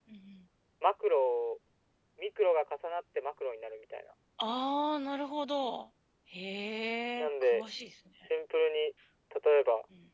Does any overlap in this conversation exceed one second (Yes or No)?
No